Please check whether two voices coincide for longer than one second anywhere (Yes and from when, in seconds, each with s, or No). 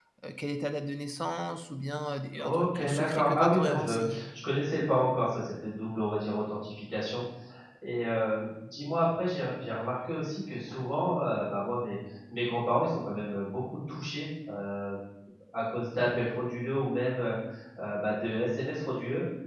Yes, from 2.3 s